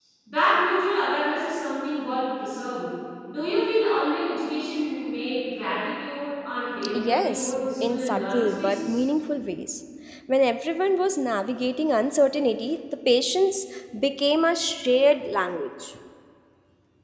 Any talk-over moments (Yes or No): Yes